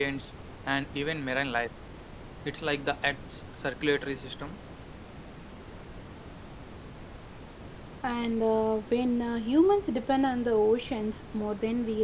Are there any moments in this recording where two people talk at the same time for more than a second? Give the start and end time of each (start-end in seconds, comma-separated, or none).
none